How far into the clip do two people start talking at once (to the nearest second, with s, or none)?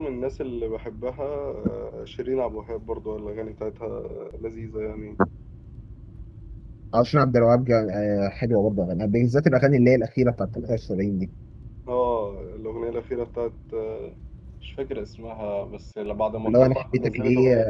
16 s